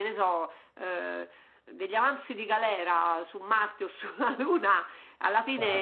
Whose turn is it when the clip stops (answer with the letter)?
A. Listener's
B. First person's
B